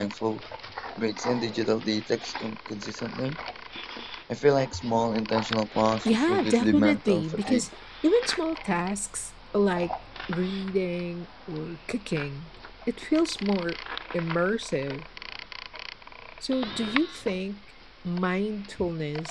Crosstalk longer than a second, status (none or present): present